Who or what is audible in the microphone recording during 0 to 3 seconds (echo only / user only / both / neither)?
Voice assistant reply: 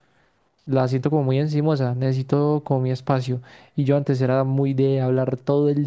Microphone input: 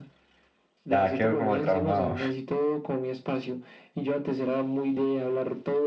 both